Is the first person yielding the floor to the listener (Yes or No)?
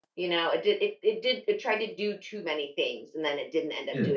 No